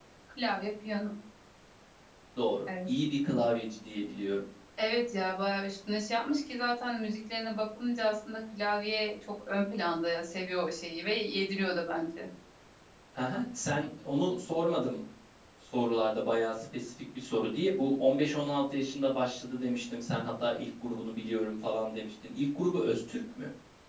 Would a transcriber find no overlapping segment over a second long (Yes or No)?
Yes